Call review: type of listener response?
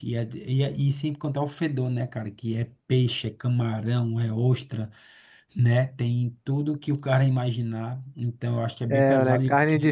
taking over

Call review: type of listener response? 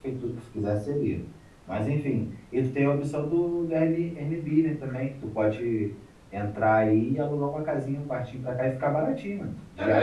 taking over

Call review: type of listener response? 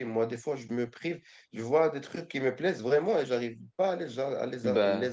listening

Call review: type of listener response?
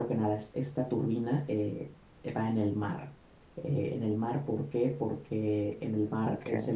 listening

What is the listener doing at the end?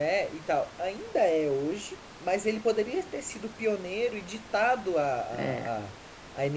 listening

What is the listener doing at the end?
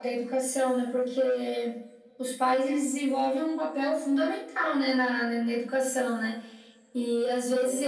listening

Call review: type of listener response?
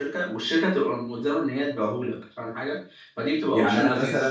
taking over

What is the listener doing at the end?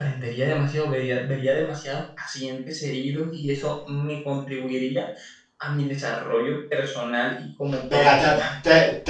taking over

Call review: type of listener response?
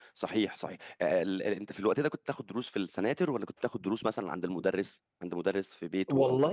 taking over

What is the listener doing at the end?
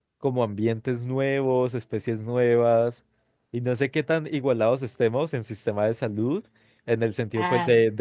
listening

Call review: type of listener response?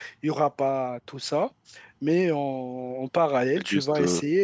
listening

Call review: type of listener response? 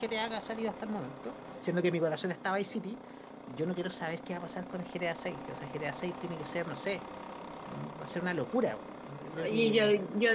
taking over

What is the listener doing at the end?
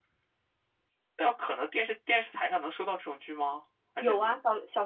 taking over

